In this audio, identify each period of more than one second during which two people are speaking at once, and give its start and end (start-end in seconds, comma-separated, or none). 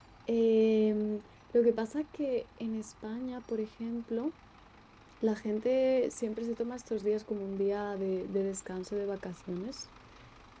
none